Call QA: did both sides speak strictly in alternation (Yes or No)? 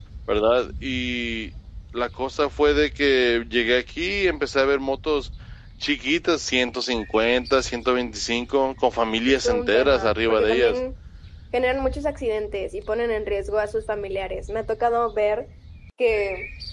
No